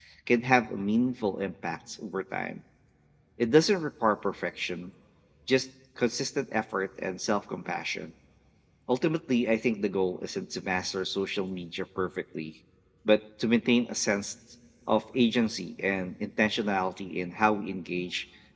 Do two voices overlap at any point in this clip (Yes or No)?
No